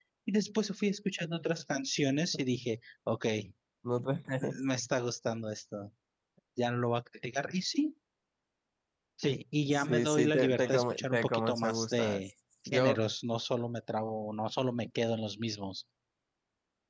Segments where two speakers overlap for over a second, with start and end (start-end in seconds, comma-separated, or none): 9.7-12.2